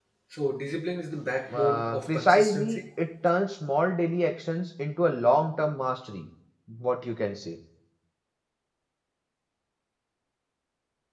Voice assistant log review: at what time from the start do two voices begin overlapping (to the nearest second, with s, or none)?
2 s